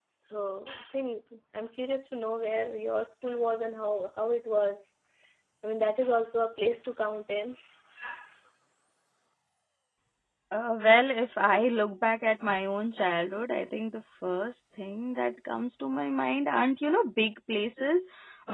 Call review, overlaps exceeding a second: none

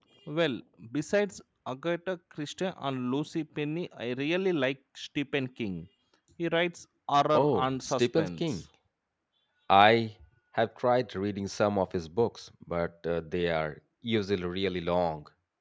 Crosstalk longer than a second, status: present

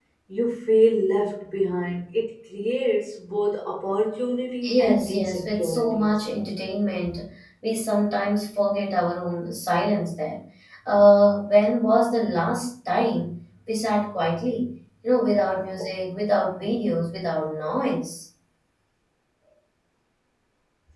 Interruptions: present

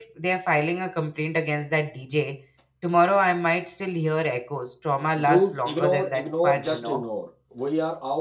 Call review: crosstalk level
present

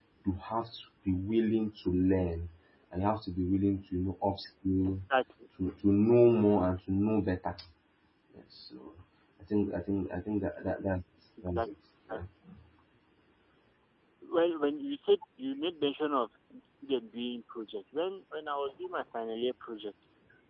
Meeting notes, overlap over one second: none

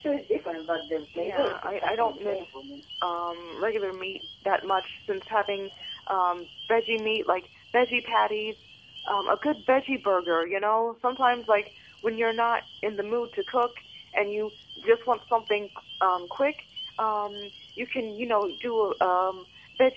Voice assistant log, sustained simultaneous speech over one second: present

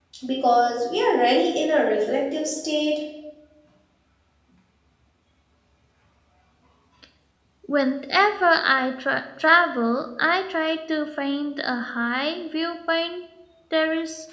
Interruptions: none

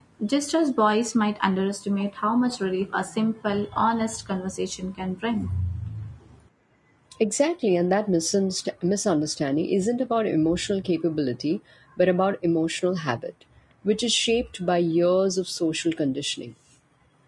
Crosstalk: none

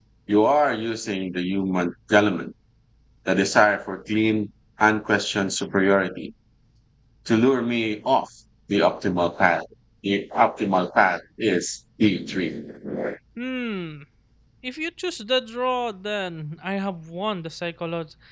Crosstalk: none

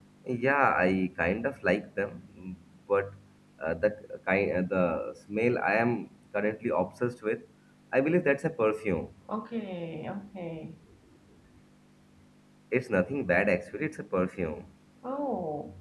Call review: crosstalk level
none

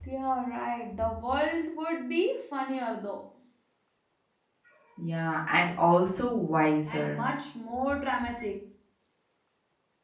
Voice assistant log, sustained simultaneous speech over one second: none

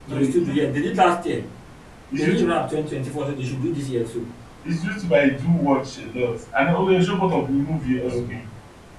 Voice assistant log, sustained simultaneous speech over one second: none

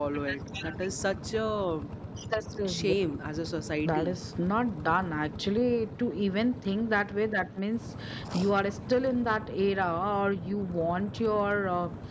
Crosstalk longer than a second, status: none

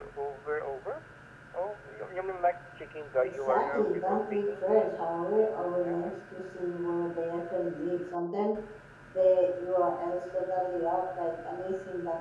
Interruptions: present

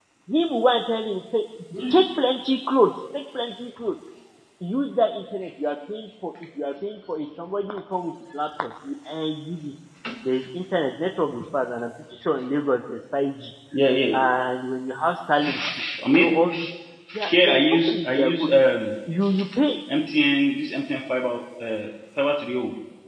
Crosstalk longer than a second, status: present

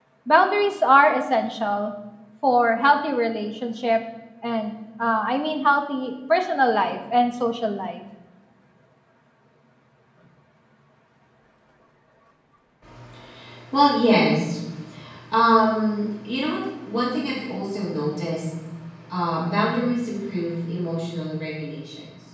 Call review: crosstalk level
none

